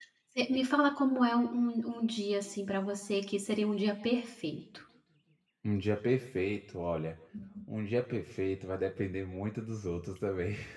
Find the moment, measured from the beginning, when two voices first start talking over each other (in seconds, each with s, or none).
none